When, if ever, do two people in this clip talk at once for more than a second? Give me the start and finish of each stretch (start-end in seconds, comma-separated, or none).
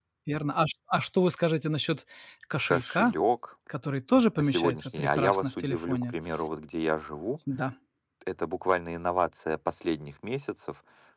4.4-6.1